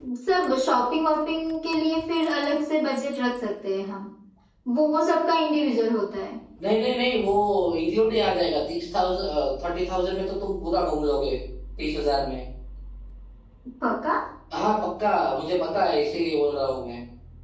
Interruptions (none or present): none